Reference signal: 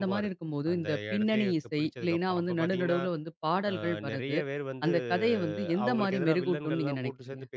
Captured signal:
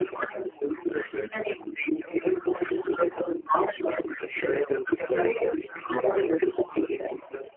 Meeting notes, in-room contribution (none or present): none